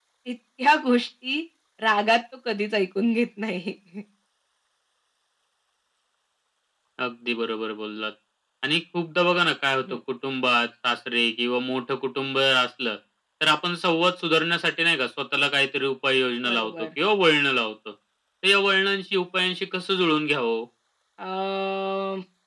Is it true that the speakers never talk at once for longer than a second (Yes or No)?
Yes